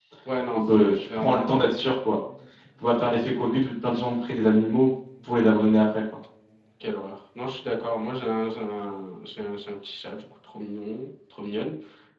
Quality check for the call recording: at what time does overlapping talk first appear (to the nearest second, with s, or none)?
1 s